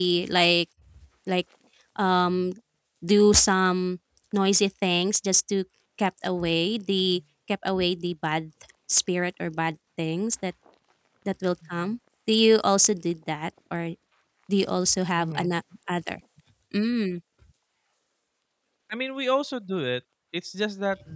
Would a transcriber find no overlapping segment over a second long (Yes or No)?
Yes